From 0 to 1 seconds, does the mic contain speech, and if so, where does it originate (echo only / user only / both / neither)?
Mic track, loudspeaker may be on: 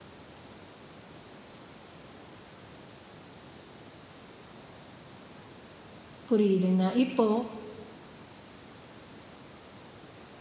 neither